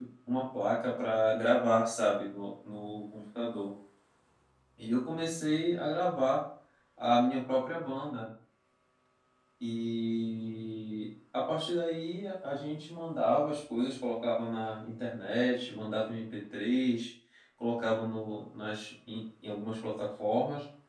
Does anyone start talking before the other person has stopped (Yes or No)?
No